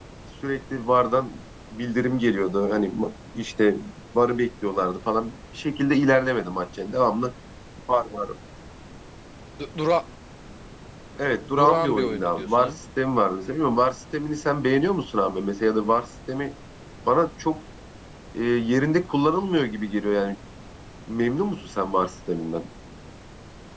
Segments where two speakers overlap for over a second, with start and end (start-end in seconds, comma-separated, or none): 11.6-12.8